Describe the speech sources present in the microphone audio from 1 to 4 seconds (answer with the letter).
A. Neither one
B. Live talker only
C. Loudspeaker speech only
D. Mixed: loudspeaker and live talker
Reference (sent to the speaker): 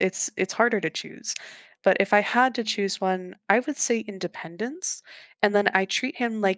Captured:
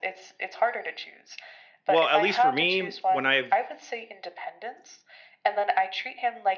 D